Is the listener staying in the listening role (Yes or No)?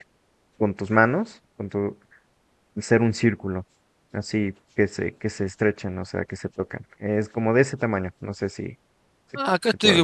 No